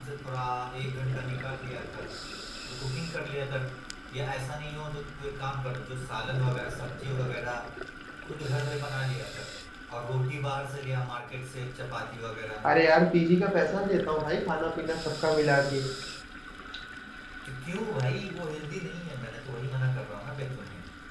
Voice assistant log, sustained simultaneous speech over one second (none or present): none